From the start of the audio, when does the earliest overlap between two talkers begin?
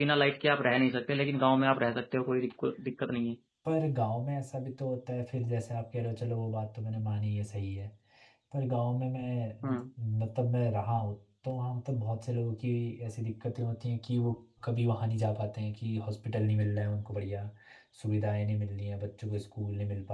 none

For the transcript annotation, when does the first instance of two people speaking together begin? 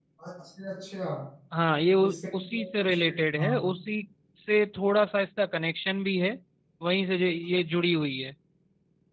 2.2 s

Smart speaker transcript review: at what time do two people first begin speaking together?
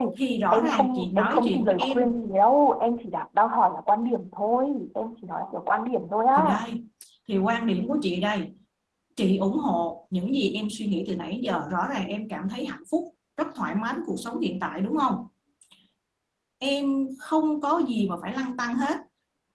0.5 s

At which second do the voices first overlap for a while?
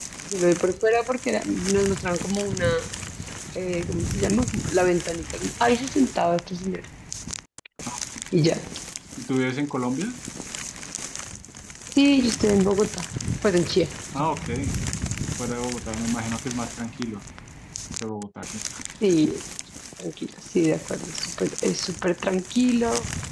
none

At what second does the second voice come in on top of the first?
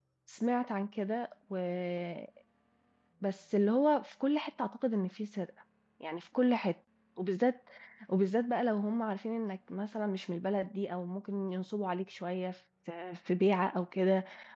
none

